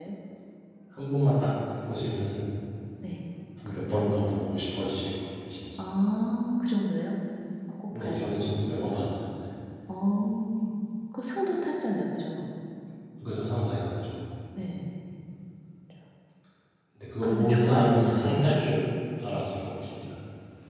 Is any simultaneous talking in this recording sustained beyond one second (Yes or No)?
Yes